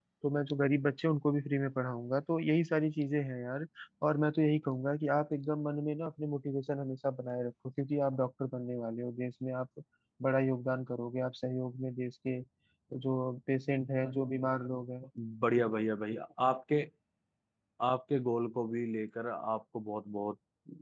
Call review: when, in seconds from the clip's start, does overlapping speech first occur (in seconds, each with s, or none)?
none